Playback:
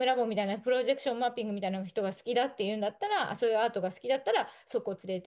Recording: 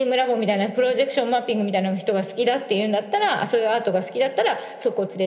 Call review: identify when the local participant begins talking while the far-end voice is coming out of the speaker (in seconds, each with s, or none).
none